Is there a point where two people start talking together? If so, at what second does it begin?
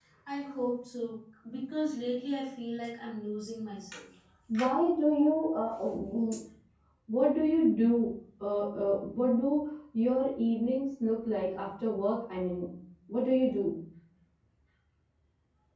none

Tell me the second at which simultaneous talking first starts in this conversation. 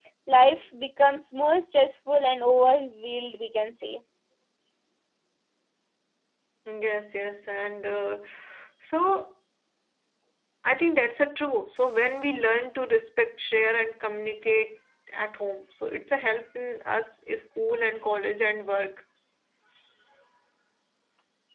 none

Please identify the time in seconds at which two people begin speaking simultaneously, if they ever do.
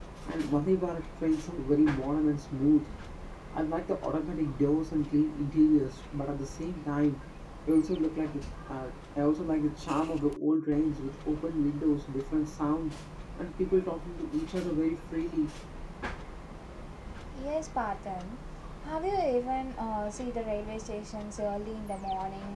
none

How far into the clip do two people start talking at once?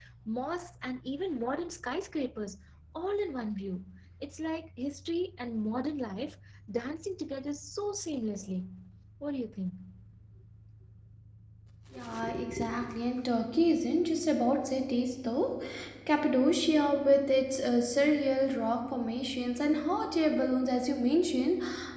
none

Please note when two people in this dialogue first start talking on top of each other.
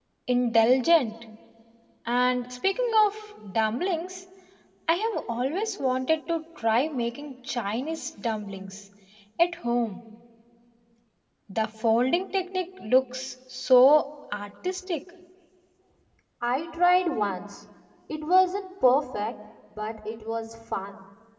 none

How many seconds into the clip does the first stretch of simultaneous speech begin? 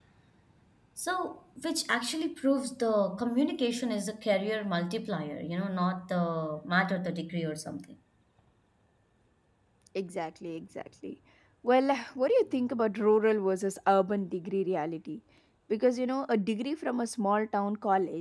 none

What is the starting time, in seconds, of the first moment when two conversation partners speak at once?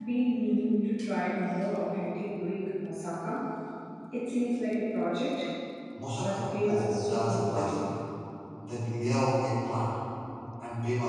6.2 s

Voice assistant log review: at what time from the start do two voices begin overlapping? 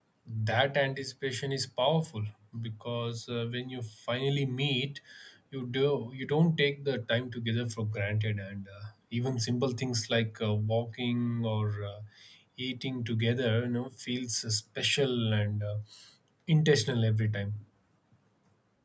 none

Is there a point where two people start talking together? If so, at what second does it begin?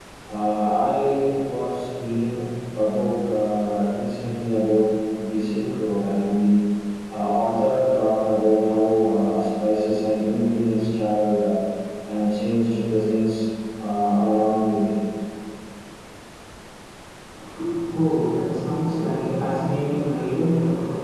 none

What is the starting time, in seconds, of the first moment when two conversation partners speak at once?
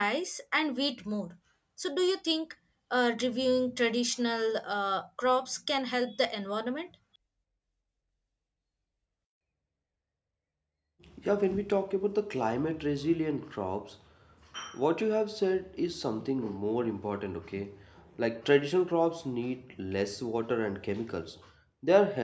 none

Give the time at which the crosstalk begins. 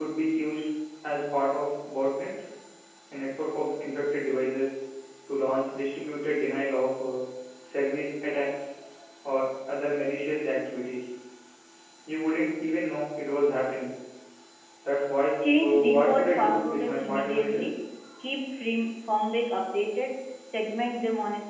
15.6 s

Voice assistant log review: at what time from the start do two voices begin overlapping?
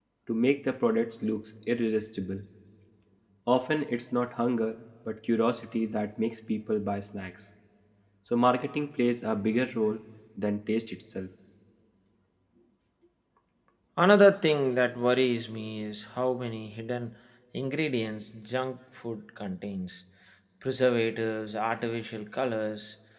none

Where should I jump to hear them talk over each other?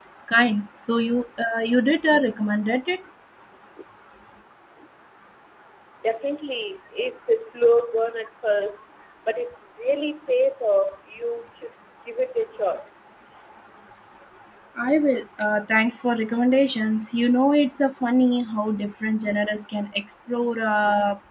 none

